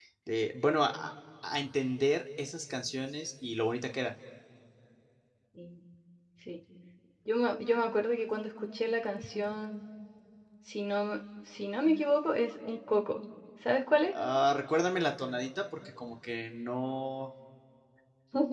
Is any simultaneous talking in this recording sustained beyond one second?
No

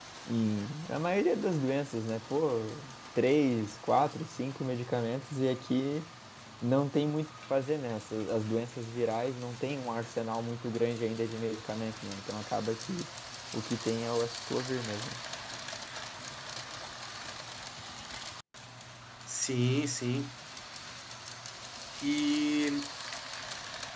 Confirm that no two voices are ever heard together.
Yes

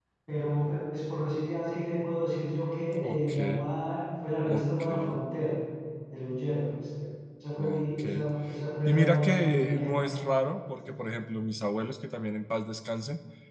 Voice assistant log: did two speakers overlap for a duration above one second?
Yes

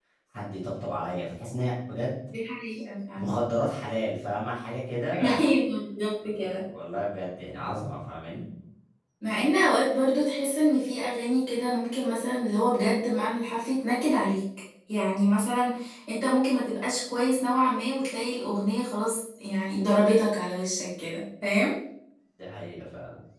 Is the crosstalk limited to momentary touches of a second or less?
Yes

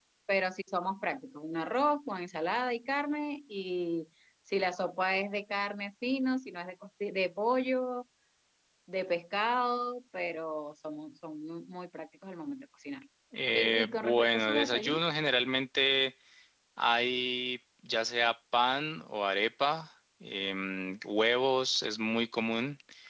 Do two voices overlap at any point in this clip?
Yes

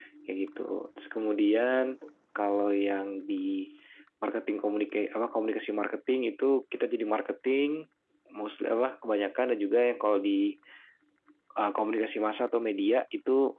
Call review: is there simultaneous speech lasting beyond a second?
No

